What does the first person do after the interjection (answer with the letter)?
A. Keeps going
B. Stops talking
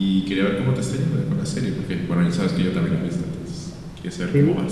B